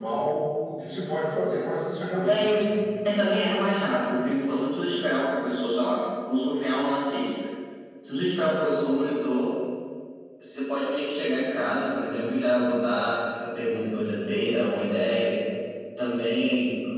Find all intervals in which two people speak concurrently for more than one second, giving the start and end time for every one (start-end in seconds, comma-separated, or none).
none